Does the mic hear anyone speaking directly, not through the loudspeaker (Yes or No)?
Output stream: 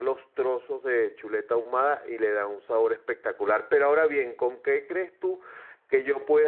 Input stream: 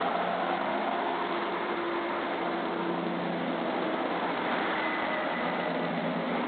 No